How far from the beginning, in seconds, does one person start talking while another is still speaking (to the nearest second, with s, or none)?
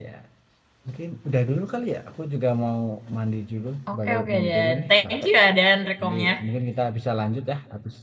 4 s